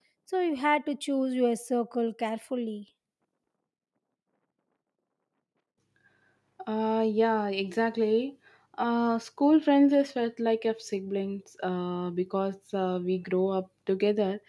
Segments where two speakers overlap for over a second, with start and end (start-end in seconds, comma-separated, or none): none